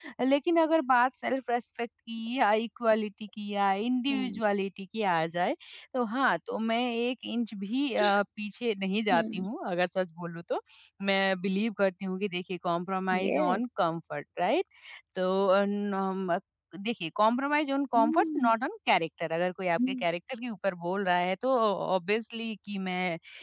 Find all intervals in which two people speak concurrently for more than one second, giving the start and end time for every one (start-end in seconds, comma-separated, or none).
none